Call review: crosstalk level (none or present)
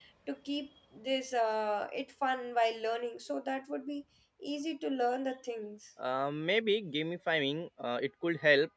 none